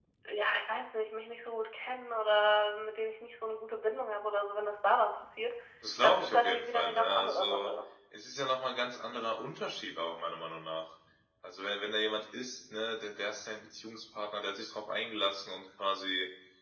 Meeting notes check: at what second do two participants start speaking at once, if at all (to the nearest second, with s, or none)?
6 s